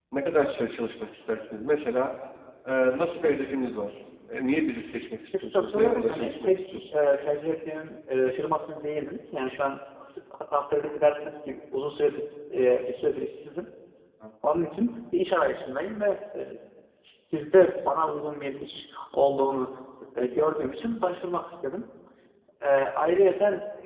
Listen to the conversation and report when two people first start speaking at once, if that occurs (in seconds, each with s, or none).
5.3 s